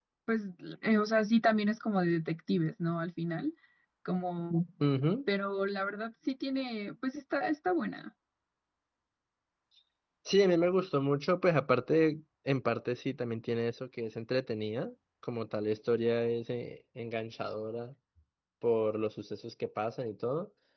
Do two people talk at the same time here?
No

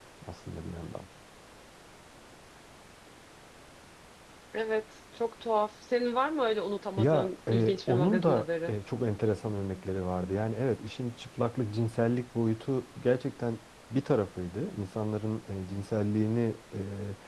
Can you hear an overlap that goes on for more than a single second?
Yes, from 7.0 s

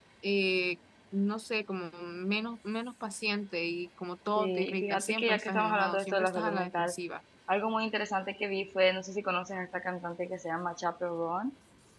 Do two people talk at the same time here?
Yes, from 4.3 s

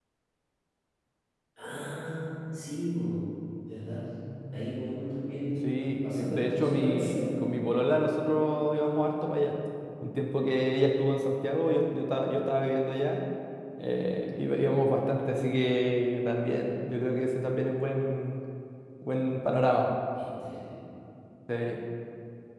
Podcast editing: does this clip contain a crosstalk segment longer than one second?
Yes, from 5.6 s

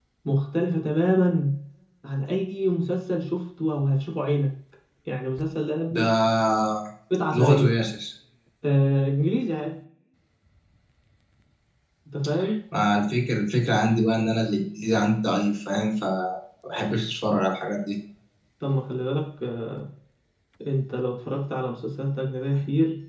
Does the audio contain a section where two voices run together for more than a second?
No

